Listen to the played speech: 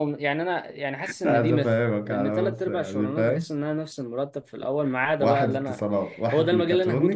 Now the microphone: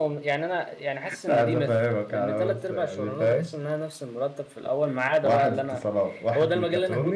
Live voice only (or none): none